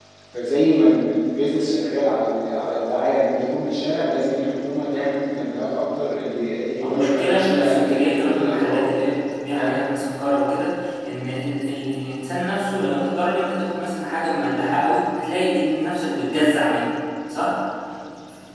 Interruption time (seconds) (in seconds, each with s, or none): 6.8 s